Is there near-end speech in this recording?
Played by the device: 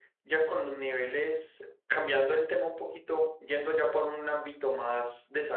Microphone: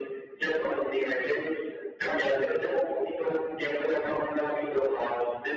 No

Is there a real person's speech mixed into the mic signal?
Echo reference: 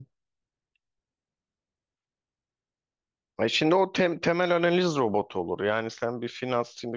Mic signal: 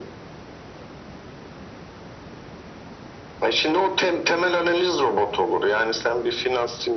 No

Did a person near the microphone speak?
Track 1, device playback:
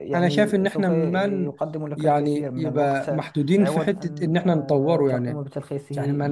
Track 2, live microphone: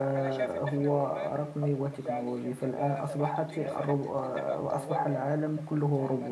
Yes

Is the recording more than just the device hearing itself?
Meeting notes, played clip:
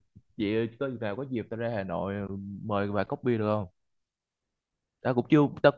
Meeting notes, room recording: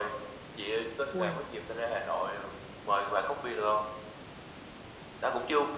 Yes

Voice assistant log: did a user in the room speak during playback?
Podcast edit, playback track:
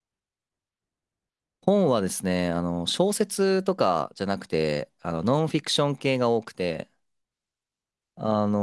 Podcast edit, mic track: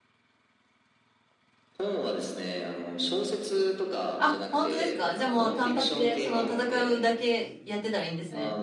Yes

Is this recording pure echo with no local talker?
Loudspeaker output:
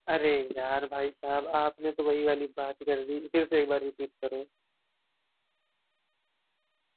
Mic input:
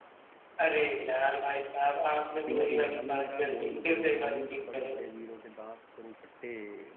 No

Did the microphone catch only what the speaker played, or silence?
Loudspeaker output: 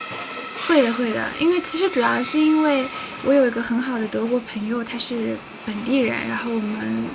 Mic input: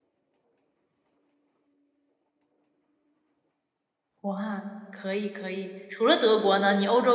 No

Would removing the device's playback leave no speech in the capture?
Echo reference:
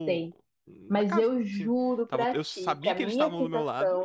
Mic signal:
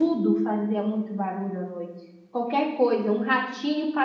No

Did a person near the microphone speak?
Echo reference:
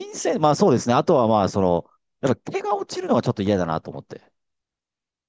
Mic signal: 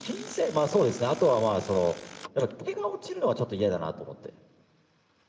No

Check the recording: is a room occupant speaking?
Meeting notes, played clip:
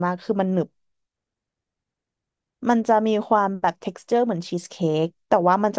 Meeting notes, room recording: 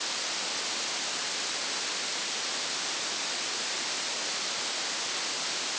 No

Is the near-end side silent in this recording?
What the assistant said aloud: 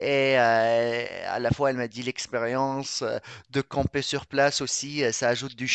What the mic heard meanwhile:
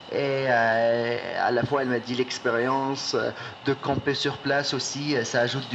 Yes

